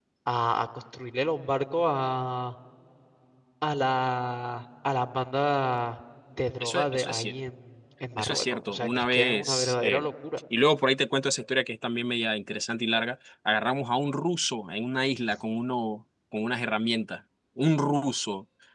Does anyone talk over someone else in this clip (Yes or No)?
Yes